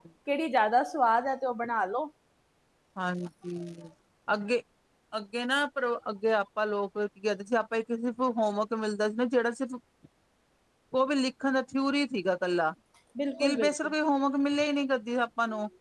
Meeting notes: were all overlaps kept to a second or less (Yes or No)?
Yes